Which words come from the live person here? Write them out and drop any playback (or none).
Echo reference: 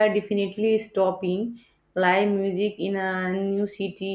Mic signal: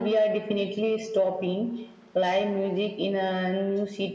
none